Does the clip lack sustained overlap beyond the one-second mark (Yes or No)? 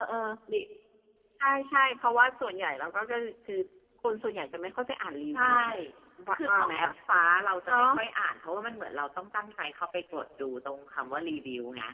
Yes